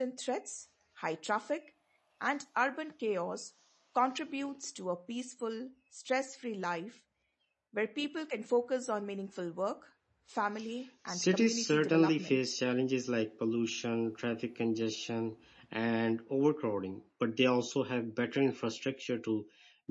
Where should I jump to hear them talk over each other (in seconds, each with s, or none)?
11.1 s